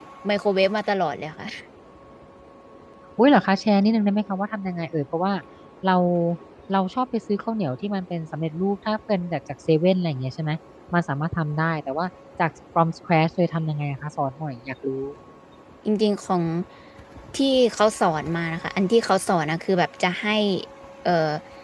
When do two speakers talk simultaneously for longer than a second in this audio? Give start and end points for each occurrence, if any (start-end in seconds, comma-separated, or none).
none